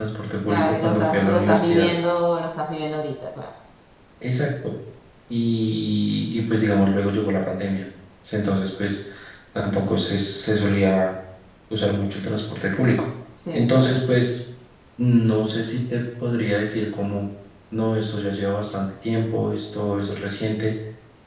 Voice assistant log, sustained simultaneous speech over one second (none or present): present